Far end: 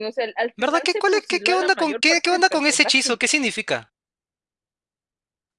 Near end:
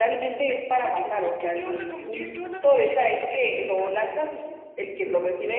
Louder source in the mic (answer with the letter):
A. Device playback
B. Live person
B